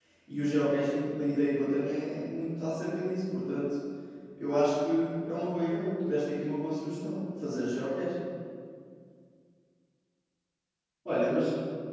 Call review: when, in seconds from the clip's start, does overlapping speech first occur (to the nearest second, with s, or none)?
none